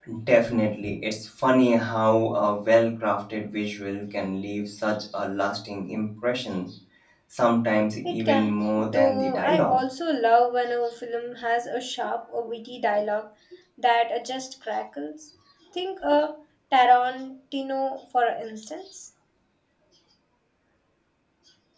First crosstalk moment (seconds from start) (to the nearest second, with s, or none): 8 s